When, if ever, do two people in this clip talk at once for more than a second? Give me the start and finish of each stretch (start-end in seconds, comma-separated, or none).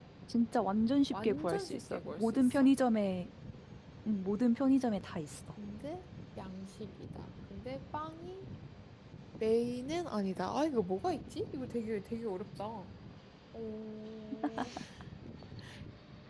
1.1-2.7